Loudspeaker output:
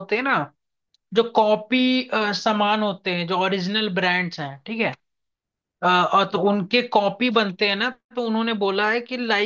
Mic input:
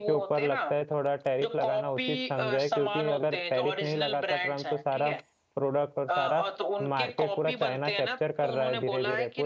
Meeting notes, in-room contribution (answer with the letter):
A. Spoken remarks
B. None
A